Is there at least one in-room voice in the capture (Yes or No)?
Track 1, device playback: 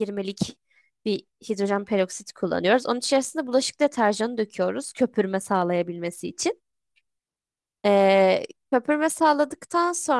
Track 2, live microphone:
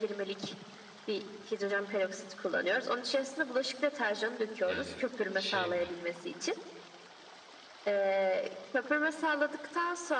Yes